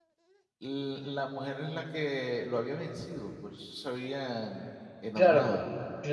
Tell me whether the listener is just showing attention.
No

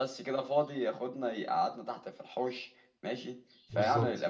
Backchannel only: Yes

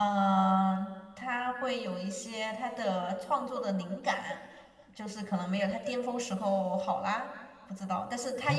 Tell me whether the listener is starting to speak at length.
Yes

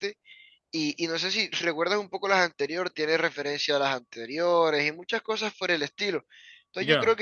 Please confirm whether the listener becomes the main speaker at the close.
No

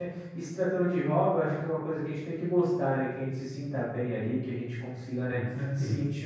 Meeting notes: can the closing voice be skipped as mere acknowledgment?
Yes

